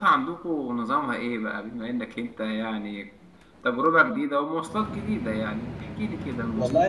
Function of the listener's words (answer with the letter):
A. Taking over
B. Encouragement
A